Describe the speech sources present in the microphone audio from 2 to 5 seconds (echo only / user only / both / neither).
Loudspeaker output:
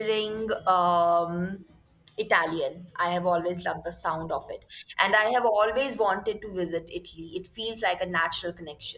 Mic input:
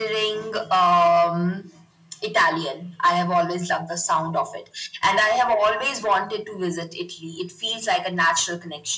echo only